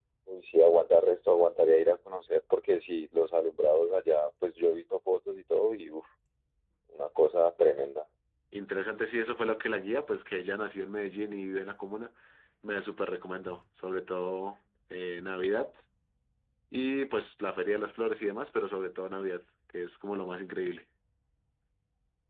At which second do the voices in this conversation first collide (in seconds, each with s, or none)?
none